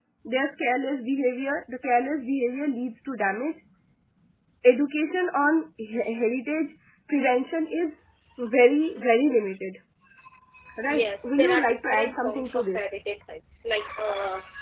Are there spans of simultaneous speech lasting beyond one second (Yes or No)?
Yes